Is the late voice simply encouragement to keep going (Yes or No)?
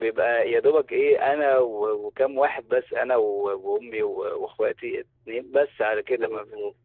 Yes